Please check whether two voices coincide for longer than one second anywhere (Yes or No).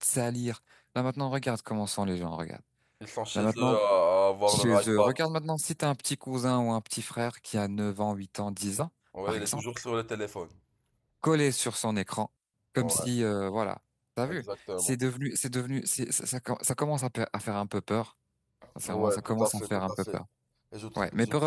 Yes